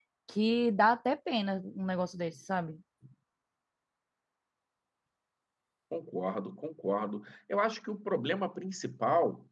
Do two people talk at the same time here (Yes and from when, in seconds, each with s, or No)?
No